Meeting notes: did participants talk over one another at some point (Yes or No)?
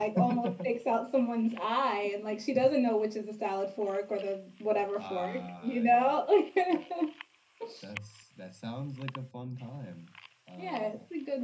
Yes